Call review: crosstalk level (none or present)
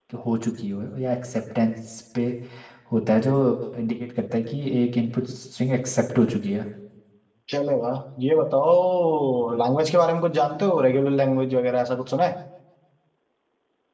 none